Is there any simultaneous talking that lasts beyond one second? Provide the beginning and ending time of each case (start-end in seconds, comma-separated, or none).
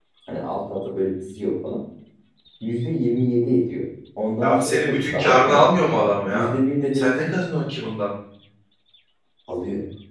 4.4-5.7